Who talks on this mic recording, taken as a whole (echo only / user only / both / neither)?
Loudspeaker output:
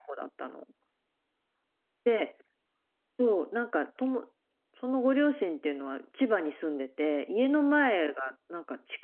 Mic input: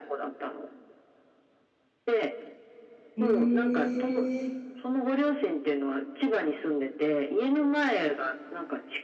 both